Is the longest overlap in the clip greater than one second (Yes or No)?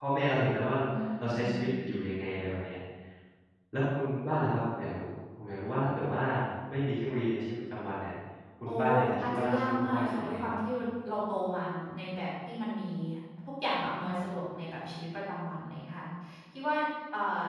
Yes